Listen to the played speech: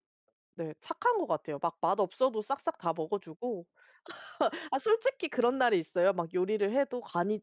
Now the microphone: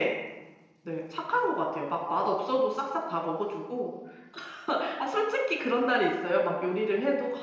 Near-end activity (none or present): none